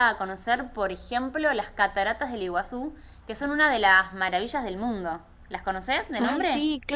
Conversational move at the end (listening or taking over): taking over